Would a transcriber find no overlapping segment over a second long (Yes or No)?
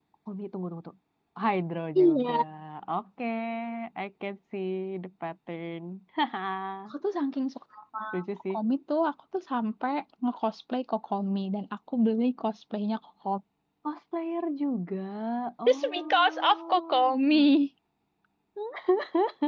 No